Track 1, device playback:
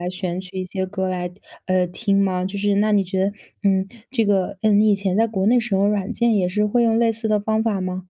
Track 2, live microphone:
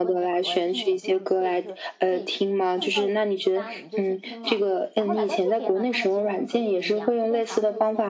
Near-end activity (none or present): present